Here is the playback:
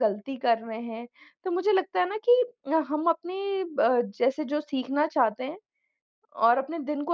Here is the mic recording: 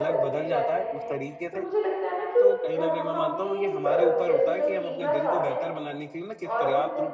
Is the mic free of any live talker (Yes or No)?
No